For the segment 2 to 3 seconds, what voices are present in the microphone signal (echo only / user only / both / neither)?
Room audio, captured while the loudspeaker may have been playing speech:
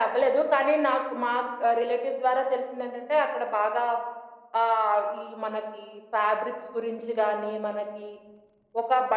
echo only